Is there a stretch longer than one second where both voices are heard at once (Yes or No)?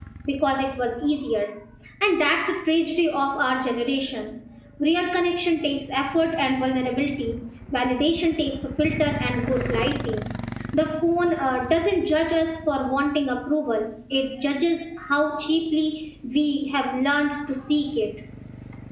No